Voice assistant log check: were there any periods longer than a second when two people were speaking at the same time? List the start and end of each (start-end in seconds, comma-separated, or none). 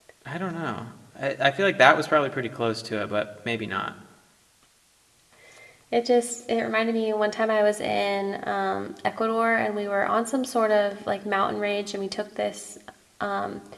none